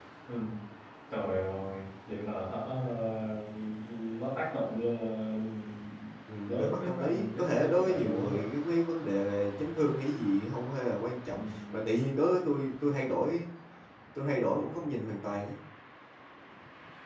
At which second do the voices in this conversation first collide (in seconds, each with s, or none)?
6.5 s